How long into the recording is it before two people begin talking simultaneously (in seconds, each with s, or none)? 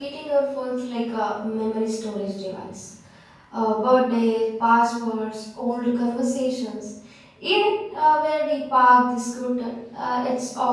none